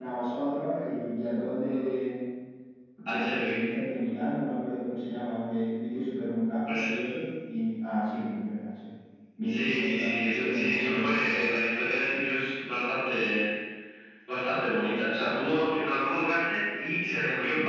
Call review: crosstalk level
present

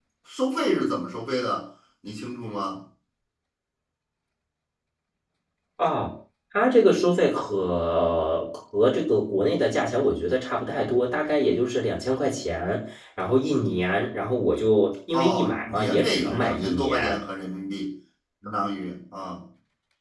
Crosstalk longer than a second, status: present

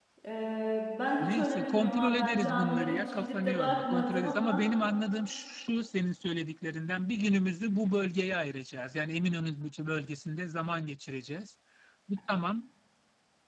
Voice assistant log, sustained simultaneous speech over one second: present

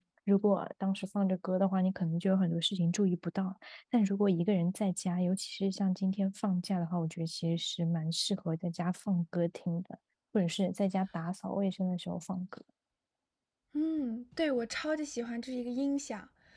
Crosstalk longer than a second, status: none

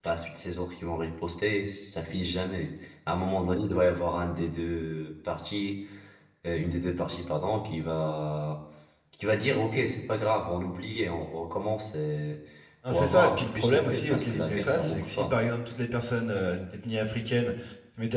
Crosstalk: present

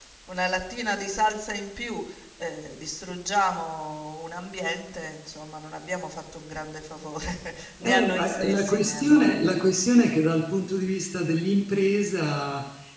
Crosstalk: present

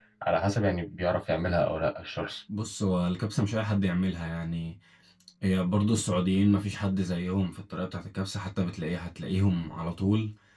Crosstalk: none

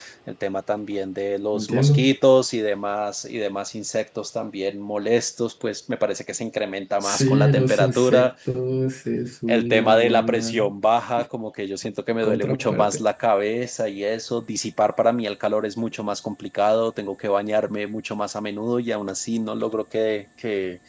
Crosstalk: present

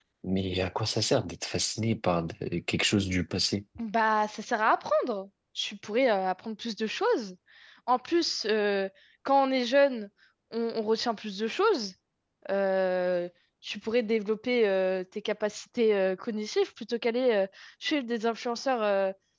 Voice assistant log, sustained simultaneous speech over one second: none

